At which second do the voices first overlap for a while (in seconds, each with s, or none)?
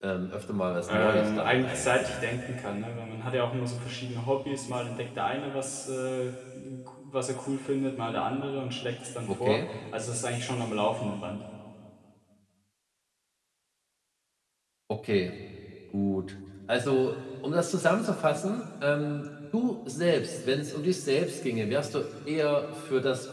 0.9 s